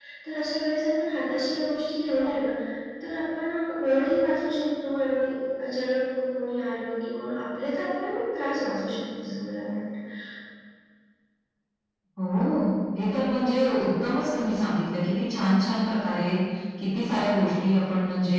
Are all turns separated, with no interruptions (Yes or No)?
Yes